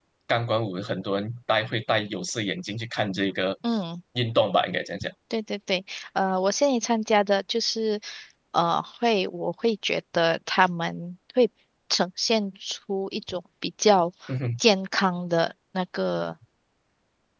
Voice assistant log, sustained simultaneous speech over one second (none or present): none